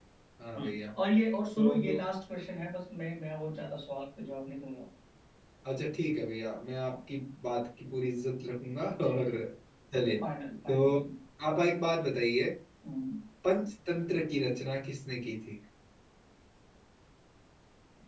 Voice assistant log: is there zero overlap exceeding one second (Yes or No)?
Yes